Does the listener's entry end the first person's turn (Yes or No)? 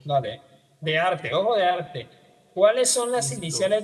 No